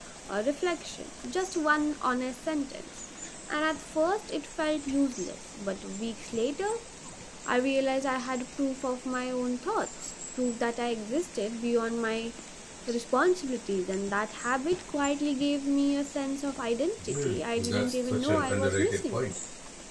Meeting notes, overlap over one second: present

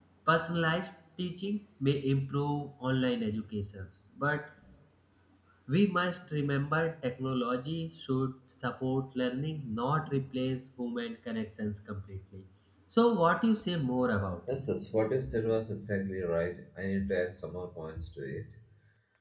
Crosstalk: none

